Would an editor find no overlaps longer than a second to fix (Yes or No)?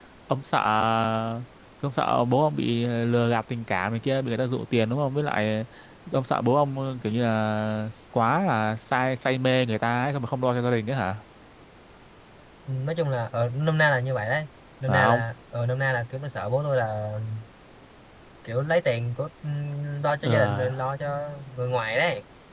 Yes